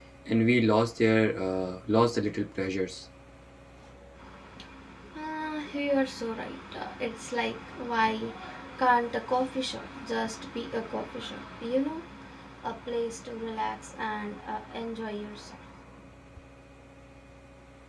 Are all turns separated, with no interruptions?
Yes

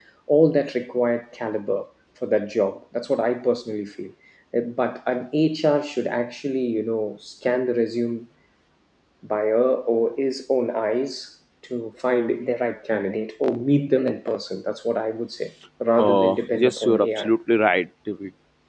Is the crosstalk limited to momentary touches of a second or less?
No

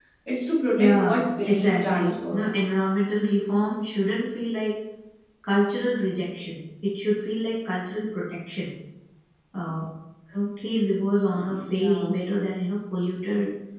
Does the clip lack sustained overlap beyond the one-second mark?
No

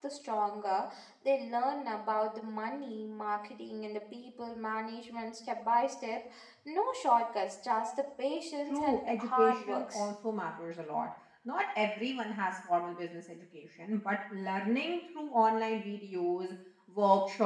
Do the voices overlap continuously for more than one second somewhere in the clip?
Yes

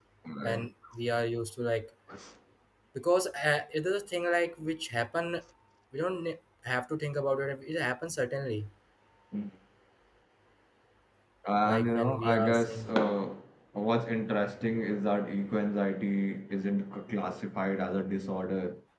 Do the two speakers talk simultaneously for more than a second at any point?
Yes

